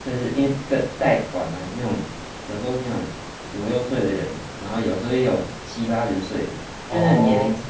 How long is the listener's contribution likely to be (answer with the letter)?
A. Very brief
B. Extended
A